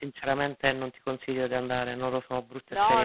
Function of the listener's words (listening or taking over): taking over